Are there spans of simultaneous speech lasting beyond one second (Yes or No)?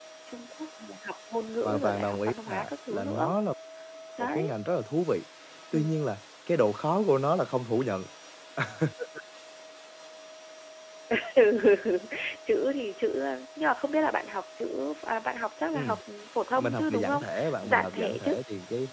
Yes